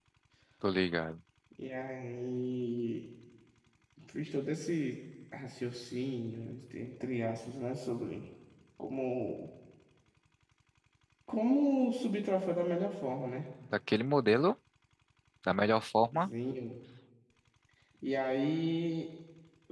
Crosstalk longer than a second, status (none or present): none